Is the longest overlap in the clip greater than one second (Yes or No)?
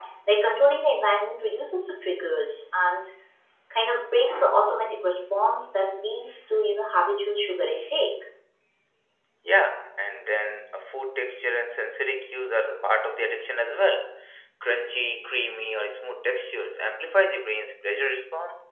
No